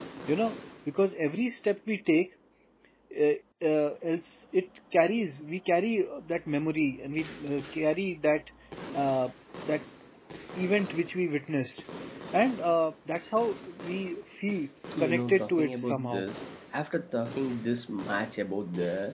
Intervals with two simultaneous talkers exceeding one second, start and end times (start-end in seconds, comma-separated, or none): 15.0-16.3